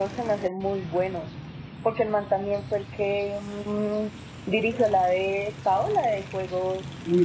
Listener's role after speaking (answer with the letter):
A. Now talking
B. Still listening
A